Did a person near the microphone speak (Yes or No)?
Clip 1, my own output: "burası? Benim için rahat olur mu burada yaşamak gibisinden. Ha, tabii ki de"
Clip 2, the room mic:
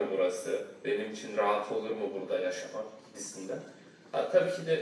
No